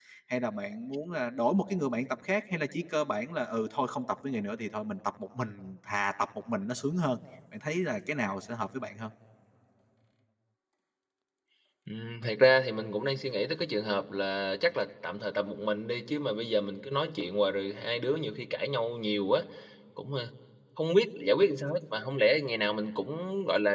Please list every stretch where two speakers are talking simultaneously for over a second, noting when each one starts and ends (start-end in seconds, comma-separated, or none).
none